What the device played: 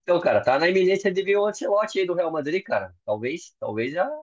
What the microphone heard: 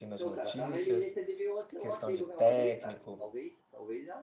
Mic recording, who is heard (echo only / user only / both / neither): both